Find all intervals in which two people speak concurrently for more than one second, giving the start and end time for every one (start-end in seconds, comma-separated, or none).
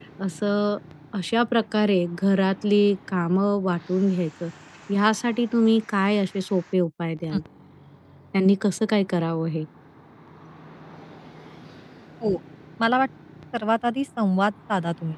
none